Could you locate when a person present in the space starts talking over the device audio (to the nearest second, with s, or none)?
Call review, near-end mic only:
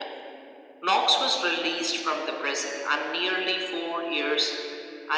none